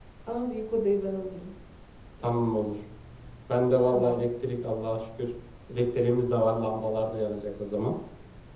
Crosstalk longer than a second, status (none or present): none